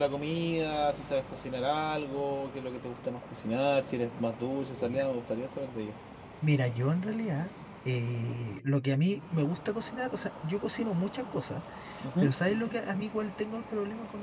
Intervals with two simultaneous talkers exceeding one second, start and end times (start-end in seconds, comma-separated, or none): none